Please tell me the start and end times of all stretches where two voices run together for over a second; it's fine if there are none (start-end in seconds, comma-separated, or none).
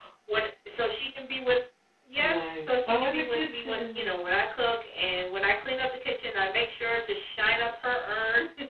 2.2-4.2